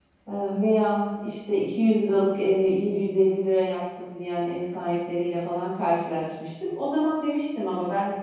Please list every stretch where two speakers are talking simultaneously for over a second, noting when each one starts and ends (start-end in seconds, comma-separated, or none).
none